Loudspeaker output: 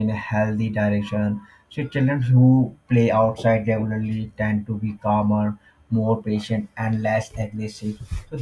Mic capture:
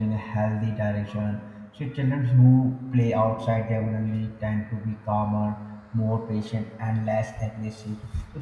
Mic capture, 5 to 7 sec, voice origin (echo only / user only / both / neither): echo only